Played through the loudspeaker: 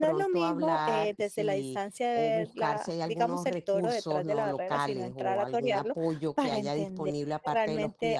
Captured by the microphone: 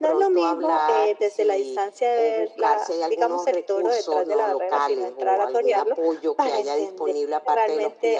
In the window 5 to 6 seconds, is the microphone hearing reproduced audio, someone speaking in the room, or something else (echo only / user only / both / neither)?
echo only